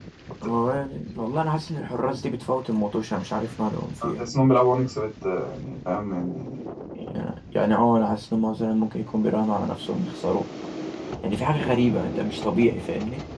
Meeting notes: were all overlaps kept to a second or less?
Yes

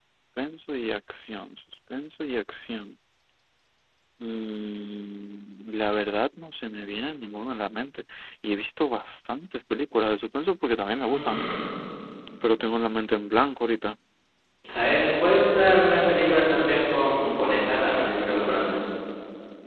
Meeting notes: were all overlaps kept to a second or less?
Yes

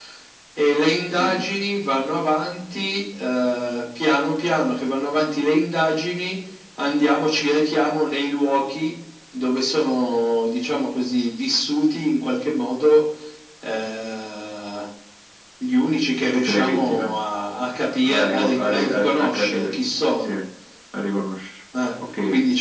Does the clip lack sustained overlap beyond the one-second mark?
No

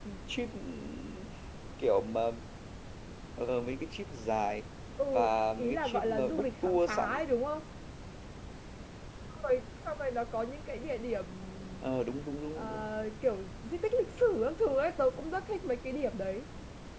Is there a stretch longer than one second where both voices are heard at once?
Yes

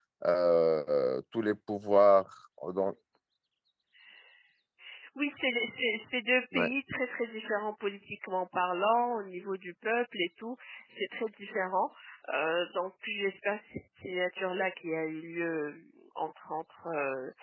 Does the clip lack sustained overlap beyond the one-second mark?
Yes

